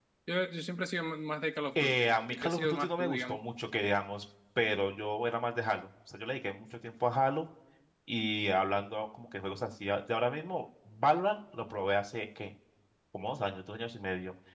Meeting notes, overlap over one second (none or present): present